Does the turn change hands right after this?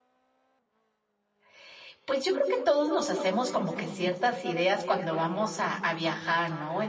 No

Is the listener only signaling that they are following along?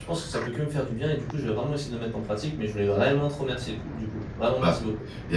No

